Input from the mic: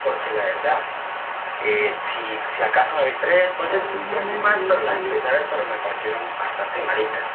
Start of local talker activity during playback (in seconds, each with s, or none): 3.7 s